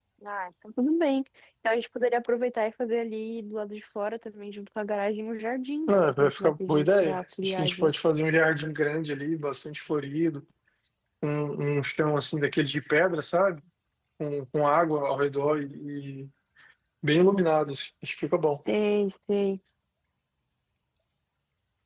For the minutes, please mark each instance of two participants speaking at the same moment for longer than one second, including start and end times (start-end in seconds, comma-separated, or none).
5.9-8.1